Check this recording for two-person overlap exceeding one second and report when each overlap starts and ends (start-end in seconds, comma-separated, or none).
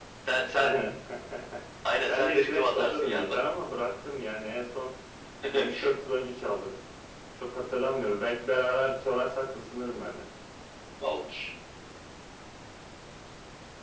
2.1-3.3